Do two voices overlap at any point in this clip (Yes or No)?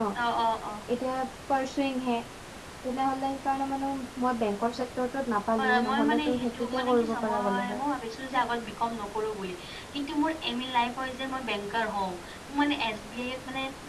Yes